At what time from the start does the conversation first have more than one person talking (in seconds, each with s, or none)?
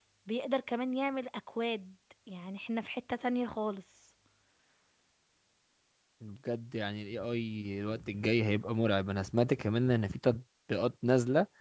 none